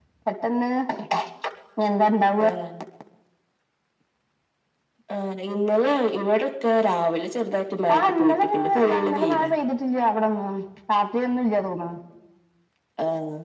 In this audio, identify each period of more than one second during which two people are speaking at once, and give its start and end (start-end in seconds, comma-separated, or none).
7.9-9.4